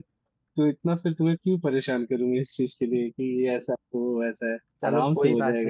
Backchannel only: No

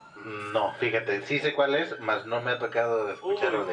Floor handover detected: Yes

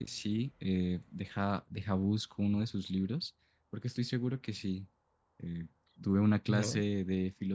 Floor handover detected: No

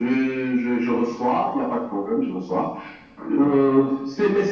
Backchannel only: Yes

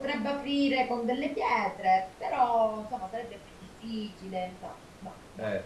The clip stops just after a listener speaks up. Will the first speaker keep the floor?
Yes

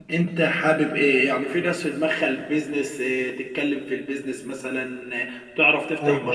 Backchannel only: Yes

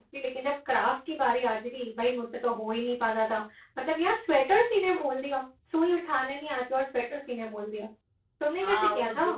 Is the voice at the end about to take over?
Yes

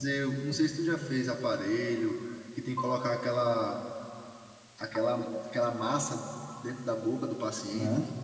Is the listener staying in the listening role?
No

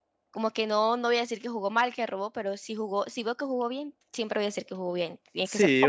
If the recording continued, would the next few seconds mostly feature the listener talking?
Yes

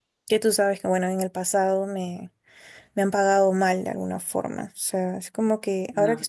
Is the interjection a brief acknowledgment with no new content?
Yes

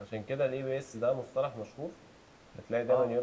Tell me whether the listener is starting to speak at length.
No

